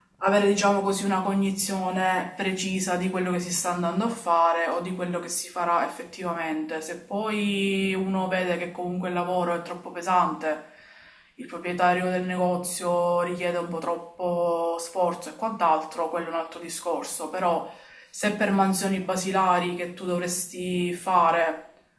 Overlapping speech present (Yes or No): No